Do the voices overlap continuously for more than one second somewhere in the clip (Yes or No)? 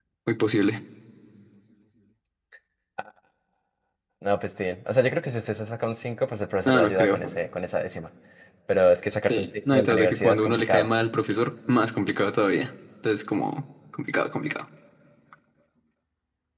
Yes